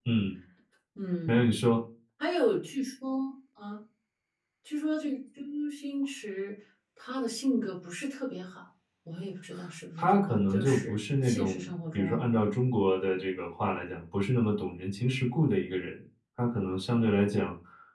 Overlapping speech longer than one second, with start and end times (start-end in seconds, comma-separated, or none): 10.0-12.2